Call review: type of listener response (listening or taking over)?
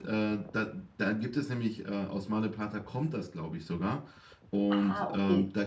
listening